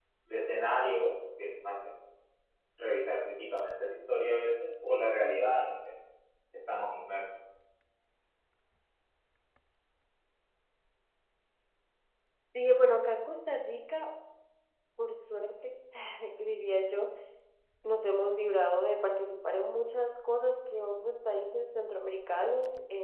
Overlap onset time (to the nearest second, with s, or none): none